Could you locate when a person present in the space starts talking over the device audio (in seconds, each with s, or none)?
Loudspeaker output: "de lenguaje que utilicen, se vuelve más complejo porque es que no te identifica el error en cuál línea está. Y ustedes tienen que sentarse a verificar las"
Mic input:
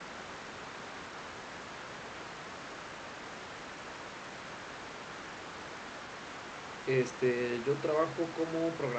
6.8 s